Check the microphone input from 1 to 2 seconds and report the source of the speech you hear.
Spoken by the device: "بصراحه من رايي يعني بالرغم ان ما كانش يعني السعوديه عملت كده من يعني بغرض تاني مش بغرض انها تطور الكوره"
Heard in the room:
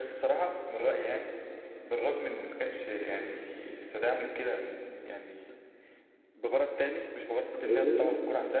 echo only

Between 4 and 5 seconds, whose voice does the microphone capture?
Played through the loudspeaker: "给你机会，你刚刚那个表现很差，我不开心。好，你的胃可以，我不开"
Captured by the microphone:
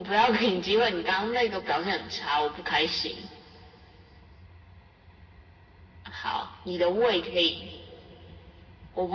neither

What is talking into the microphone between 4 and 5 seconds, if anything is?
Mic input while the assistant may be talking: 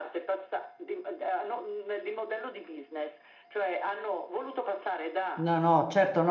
echo only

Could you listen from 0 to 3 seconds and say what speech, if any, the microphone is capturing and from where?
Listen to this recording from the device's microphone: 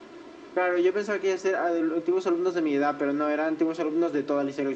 echo only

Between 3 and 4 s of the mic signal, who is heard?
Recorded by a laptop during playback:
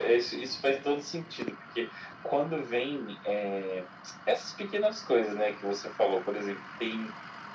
echo only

